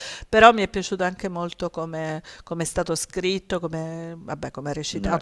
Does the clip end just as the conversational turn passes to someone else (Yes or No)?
No